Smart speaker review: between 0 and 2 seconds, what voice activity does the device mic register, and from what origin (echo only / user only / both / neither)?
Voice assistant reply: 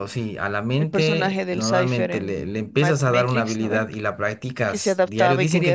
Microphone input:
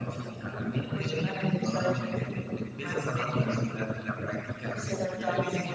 echo only